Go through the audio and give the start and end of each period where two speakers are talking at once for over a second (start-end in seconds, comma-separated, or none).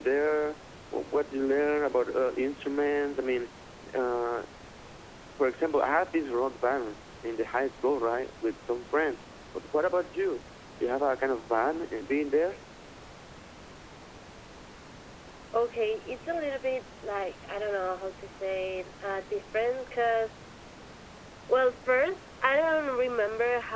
none